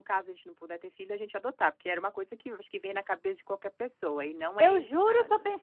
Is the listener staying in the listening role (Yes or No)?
No